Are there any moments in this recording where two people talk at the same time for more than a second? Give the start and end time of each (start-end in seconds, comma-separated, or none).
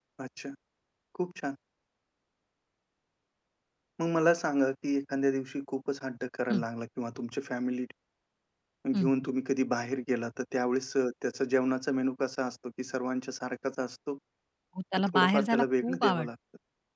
15.0-16.3